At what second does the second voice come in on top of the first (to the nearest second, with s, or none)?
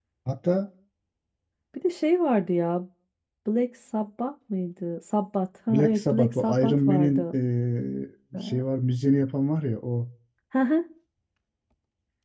6 s